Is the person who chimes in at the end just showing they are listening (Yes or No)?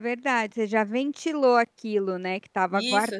No